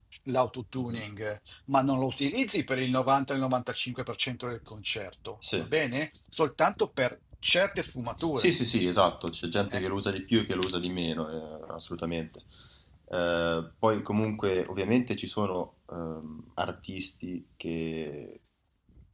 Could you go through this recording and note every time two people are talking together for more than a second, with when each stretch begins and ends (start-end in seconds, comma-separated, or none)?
none